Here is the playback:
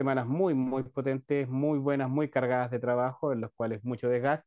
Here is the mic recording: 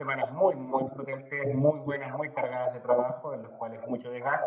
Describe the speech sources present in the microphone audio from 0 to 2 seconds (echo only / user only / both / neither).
echo only